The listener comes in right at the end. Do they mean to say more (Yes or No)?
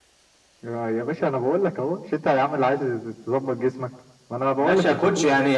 Yes